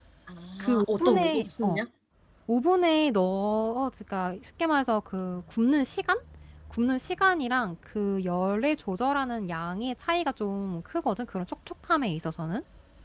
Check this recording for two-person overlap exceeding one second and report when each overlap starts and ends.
0.6-1.8

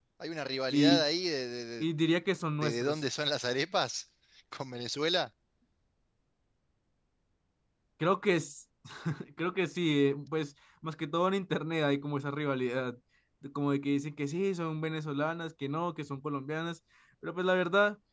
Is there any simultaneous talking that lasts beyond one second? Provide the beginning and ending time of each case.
none

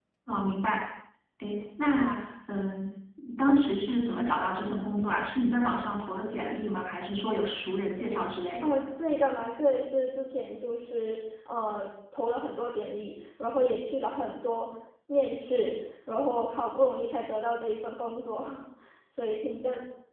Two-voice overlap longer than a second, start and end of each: none

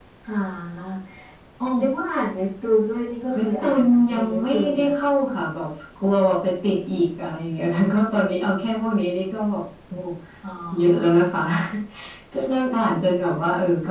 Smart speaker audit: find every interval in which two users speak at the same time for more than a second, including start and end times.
3.4-4.9

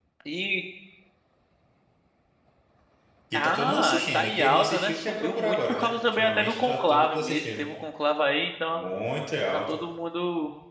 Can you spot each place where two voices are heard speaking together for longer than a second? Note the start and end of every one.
3.3-7.7

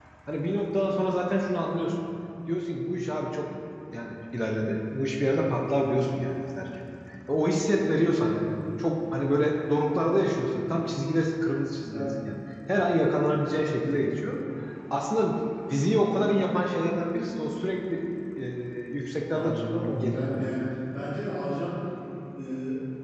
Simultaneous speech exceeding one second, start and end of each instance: 19.3-20.6

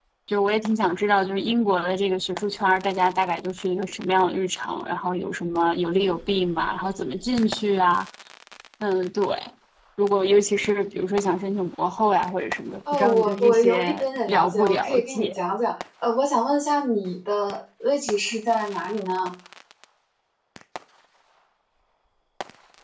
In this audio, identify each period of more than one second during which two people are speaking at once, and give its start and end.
12.9-15.3

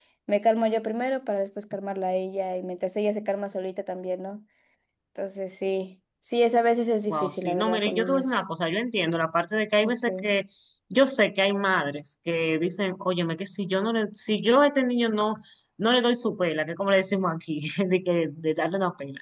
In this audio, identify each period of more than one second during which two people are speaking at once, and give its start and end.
7.1-8.4

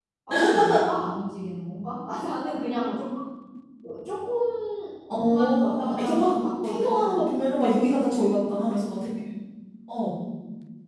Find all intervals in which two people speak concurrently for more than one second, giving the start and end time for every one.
5.2-7.3

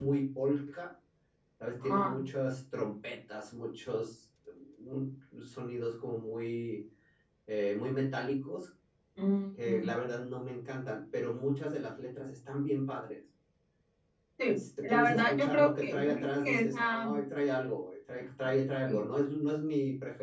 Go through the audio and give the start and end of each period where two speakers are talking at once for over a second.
14.5-17.0

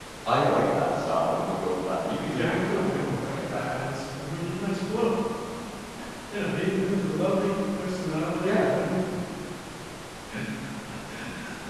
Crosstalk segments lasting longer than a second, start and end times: 2.3-3.8

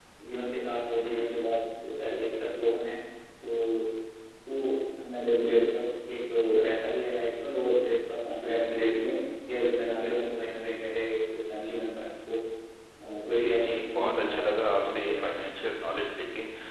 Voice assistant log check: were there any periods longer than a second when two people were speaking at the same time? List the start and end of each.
13.4-15.1

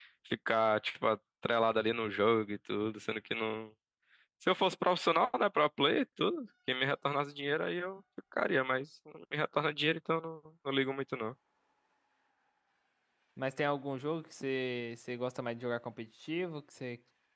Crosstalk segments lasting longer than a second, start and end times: none

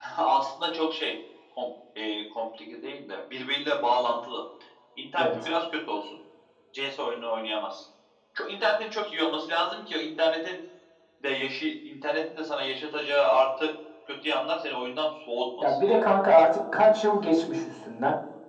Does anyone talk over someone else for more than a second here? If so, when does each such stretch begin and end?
none

